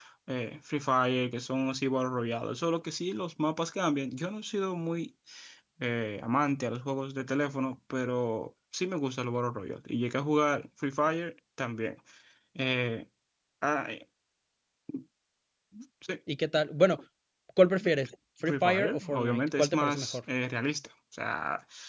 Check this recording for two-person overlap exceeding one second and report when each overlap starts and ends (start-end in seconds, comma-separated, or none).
18.4-20.2